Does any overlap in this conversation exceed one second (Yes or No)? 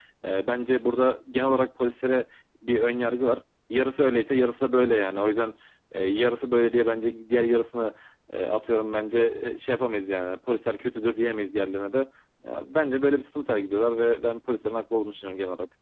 No